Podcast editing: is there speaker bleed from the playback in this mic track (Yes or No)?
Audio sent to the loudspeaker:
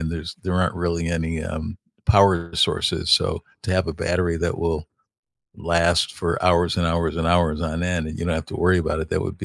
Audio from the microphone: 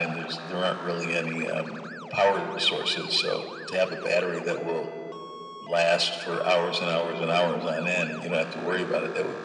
Yes